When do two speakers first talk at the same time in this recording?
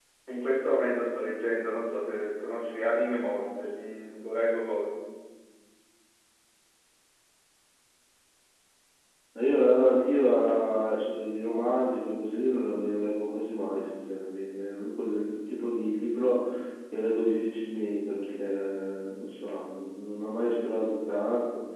none

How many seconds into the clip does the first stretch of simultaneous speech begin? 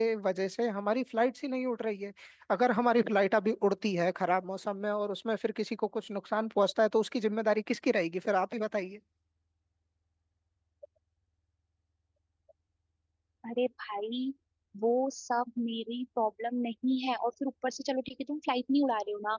none

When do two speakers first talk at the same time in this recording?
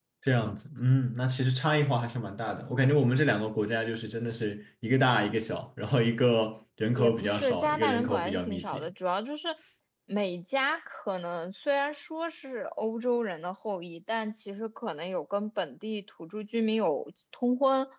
7.0 s

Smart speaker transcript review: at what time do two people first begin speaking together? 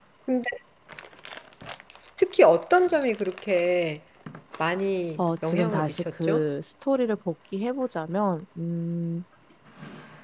5.2 s

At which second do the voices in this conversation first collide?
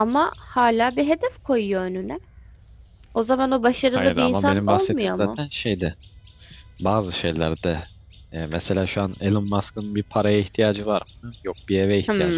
4.0 s

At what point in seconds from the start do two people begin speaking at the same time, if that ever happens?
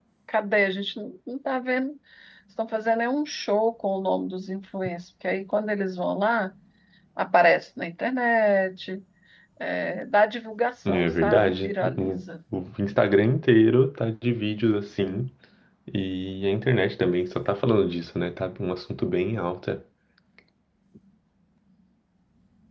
10.8 s

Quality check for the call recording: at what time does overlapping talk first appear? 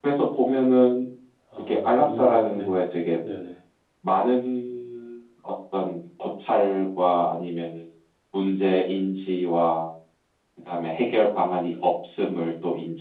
1.6 s

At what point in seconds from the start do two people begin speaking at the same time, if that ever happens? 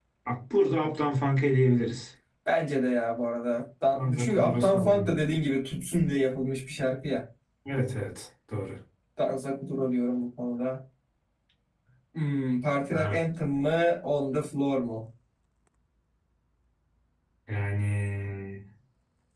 3.9 s

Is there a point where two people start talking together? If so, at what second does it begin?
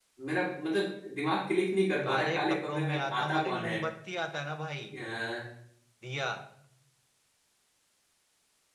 2.0 s

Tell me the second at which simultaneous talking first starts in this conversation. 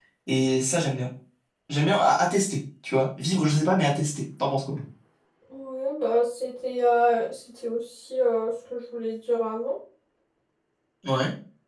none

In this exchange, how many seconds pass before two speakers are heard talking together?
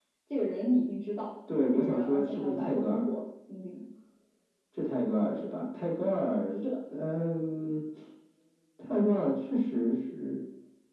1.7 s

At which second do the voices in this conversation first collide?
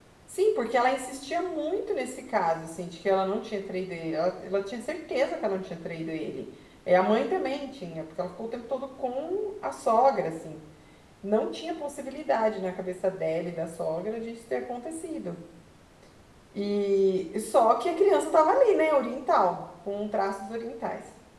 none

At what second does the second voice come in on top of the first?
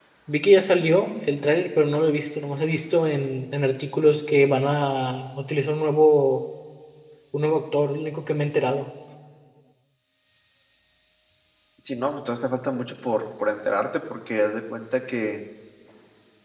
none

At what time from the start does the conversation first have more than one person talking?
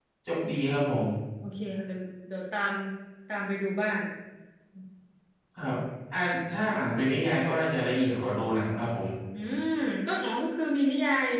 none

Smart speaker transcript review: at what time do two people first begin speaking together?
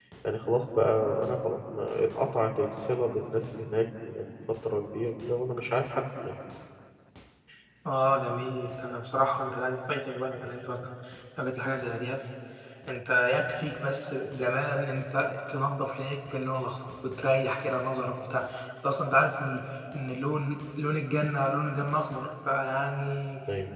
none

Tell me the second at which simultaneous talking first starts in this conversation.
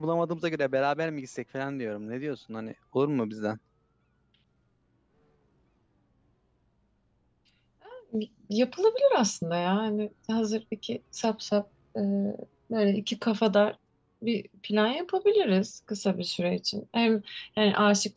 none

